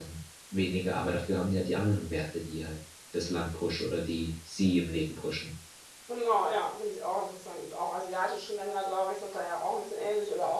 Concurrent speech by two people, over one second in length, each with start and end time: none

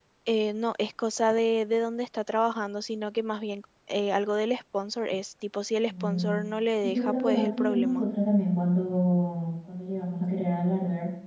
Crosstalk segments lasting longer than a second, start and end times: 6.8-8.0

